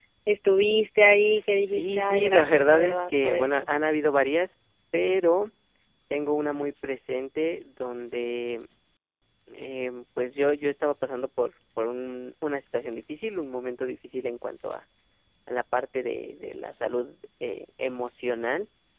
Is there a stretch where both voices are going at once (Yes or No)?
Yes